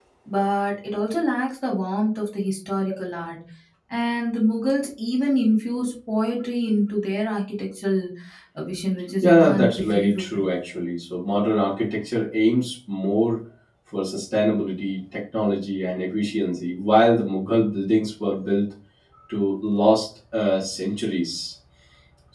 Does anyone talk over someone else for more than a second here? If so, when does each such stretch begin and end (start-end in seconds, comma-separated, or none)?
9.2-10.4